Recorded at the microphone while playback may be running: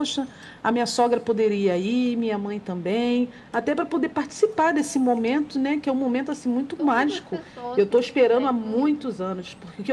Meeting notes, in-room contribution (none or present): present